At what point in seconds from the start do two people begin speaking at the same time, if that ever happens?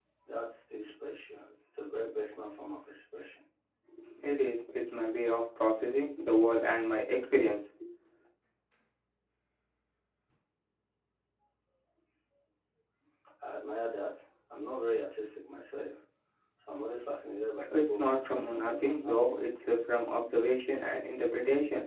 18 s

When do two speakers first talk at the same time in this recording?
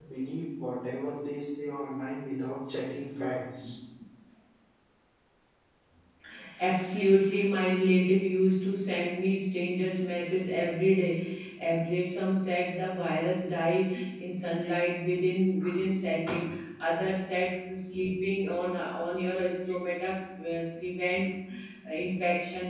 none

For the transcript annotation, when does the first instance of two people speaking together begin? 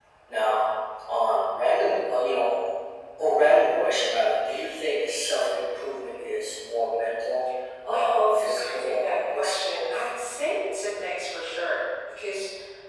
8 s

